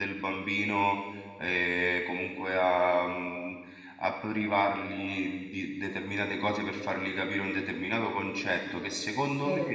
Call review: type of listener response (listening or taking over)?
listening